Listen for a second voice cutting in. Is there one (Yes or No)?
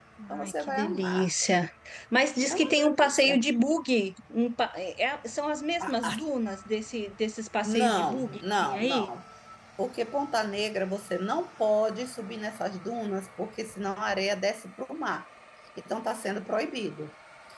Yes